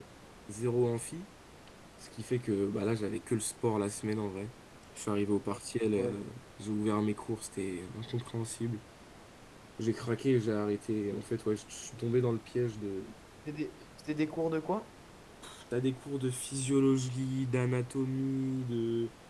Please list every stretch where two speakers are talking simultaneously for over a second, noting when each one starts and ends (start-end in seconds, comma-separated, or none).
none